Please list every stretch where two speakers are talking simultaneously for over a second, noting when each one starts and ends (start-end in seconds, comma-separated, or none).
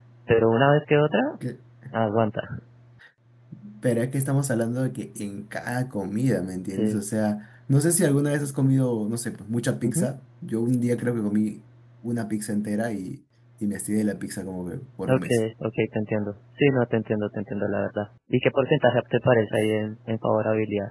none